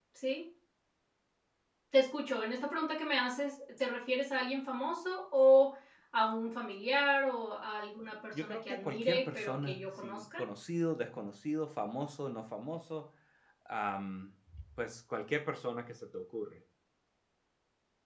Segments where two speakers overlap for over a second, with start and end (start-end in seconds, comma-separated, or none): 8.3-10.4